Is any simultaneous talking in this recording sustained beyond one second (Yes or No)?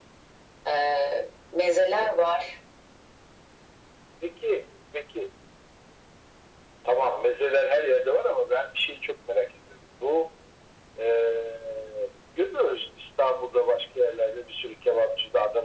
No